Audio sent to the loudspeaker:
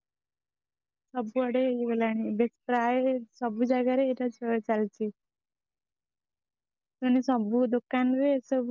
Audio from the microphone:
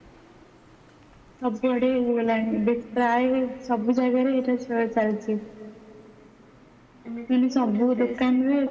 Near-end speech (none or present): present